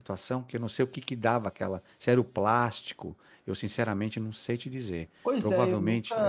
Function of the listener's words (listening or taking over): taking over